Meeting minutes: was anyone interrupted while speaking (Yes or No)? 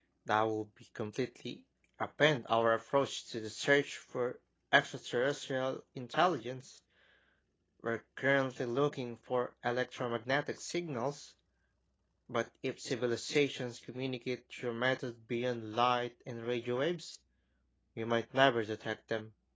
No